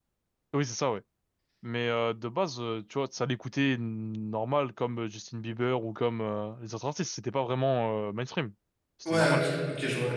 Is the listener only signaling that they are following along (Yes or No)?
No